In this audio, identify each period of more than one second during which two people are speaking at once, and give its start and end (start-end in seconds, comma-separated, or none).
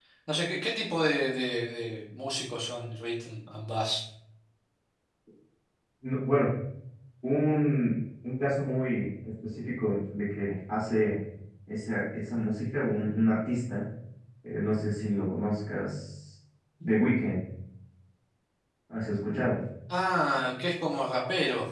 none